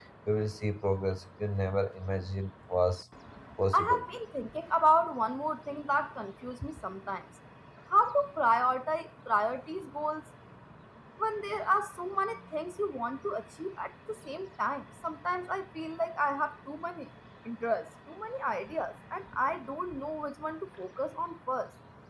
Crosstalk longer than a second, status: none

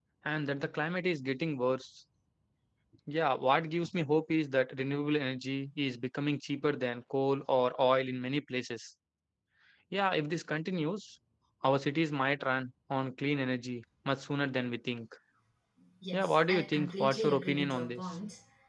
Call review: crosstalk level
present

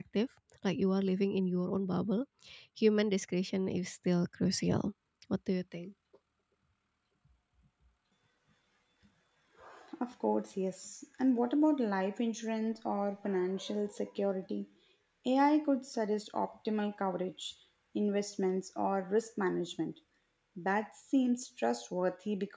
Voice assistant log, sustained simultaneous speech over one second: none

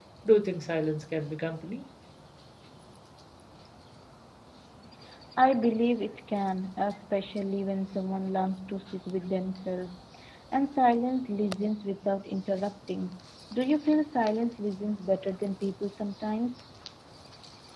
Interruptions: none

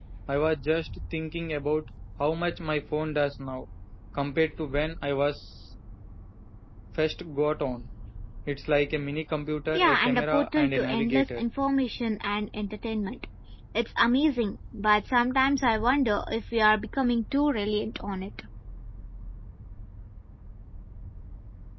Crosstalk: present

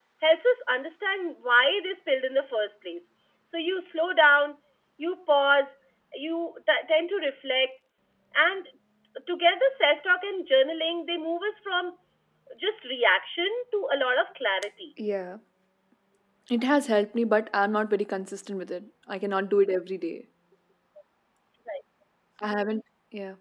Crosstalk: none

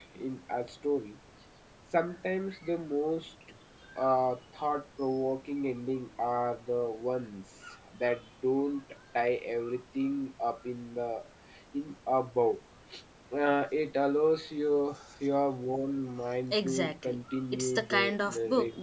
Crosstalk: present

